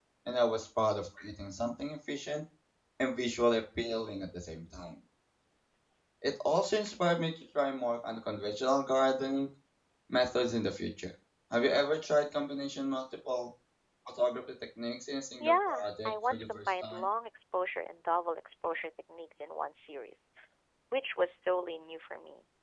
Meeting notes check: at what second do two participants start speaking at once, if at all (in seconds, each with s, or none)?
15.4 s